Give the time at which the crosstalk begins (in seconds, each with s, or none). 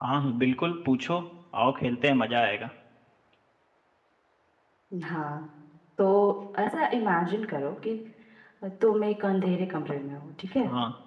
none